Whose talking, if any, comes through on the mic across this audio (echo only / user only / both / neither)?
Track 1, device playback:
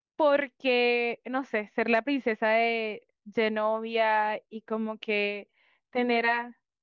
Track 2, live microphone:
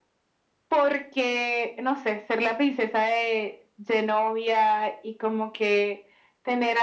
echo only